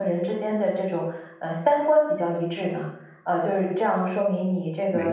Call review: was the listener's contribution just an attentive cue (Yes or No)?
Yes